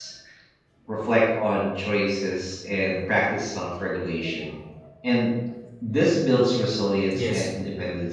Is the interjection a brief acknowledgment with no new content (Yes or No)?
Yes